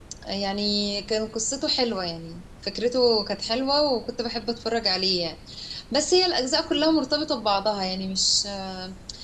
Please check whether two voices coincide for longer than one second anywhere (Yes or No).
No